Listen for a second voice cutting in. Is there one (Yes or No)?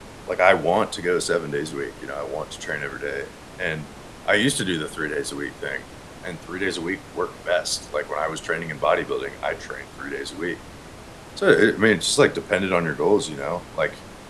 No